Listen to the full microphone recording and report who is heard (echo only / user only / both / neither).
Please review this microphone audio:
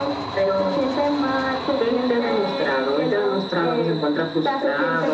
echo only